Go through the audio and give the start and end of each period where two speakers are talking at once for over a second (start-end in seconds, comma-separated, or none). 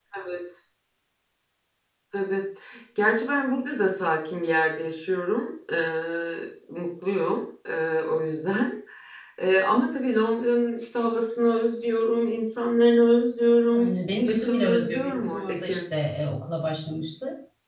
13.8-15.8